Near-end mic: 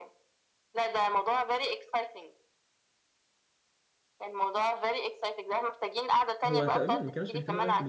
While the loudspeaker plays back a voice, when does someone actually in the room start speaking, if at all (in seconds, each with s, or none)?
6.5 s